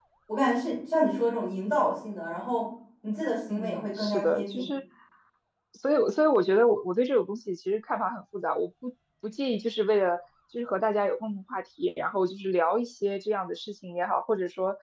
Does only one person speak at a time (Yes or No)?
No